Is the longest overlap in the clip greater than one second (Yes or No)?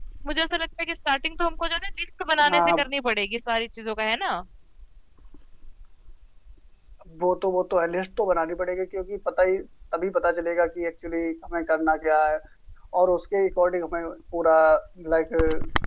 No